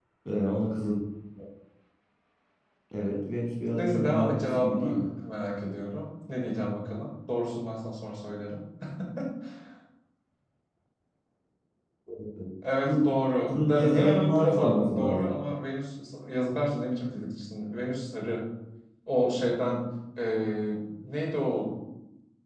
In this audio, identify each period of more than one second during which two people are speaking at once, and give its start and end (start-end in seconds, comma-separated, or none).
3.8-5.1, 13.5-15.3